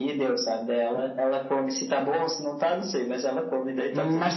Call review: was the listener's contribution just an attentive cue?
No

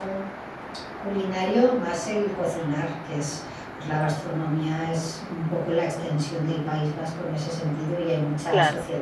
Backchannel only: Yes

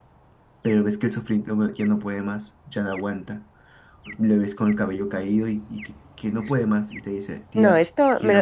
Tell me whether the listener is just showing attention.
No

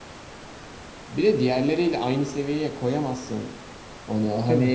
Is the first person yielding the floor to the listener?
No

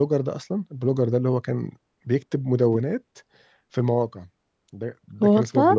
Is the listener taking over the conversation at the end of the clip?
No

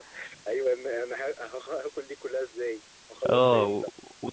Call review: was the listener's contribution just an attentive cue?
No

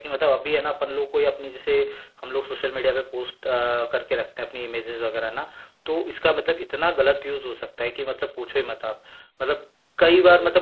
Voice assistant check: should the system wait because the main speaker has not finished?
Yes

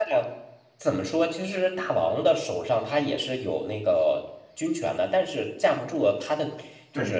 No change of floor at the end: No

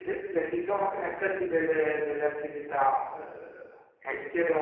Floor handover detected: No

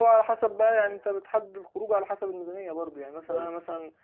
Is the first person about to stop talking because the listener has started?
No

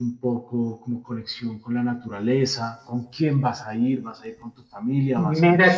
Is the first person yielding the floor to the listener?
Yes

